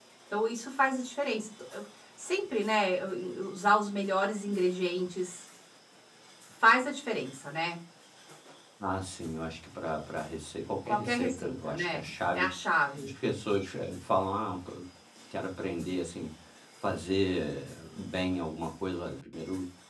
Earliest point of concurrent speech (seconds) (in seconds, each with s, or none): 10.9 s